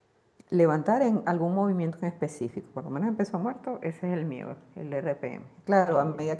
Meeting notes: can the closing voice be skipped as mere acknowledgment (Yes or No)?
Yes